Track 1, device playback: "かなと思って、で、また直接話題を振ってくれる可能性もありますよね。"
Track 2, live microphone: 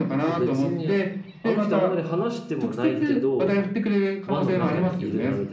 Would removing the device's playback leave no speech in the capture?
No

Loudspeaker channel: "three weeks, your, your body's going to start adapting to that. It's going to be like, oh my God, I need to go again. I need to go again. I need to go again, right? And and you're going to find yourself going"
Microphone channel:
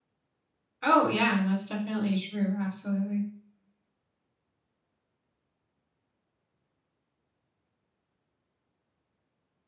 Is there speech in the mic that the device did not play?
Yes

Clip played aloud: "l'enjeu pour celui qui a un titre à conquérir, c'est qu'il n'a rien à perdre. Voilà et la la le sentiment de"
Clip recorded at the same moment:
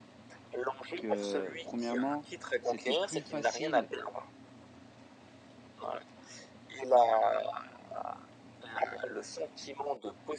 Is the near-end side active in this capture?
Yes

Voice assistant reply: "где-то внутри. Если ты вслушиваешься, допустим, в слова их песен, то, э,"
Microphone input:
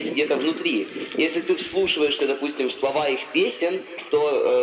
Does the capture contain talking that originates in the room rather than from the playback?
No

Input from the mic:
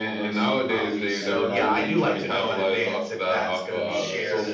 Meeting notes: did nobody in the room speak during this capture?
No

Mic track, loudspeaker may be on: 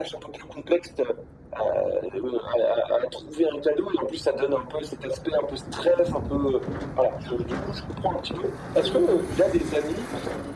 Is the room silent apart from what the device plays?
Yes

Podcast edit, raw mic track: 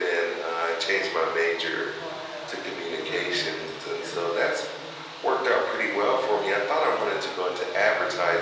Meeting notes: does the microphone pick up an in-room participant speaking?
Yes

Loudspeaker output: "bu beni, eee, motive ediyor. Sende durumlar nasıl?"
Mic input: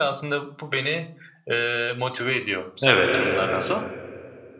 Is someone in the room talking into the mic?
Yes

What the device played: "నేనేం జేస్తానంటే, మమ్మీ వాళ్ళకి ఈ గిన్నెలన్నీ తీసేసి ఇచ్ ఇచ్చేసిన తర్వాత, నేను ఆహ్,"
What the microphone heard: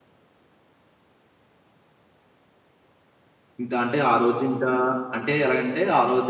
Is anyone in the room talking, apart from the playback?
Yes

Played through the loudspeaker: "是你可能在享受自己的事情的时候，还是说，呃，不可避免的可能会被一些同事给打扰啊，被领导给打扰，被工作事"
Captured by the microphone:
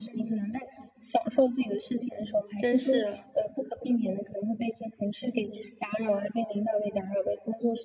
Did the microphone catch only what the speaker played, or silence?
No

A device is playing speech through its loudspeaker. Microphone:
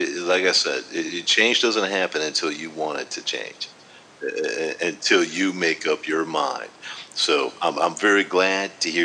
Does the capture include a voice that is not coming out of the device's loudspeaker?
No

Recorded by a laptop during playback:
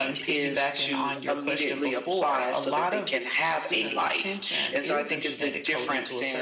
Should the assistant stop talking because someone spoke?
Yes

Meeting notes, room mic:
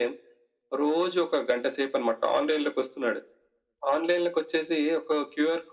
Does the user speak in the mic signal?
No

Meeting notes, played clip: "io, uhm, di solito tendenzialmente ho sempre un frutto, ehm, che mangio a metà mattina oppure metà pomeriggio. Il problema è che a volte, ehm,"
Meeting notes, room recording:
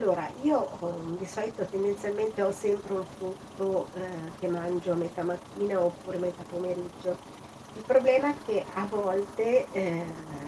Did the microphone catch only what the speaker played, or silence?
Yes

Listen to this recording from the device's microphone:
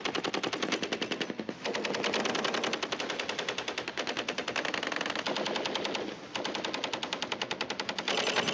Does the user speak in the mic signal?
No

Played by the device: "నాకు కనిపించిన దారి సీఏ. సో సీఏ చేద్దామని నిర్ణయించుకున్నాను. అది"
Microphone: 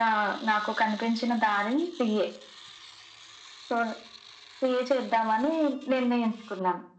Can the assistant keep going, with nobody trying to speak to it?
Yes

